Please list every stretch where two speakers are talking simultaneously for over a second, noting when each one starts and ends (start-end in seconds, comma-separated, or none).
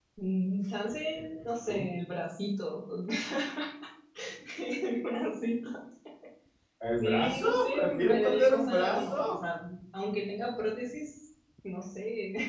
7.0-9.4